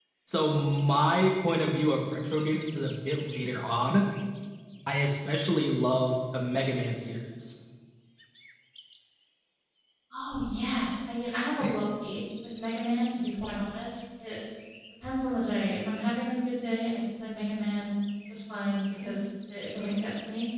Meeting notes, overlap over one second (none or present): none